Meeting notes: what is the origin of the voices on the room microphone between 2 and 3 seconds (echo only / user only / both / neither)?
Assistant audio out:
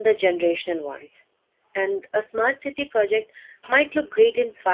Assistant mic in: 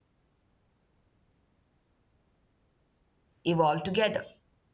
neither